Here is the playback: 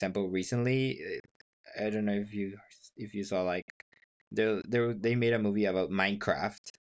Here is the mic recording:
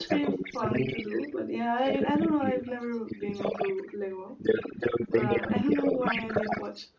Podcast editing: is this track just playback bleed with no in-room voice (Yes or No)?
No